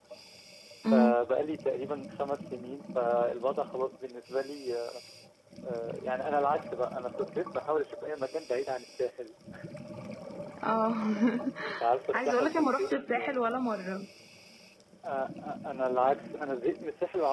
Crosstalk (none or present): present